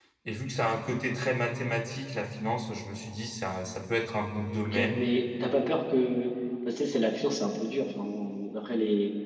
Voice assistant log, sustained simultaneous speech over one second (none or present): none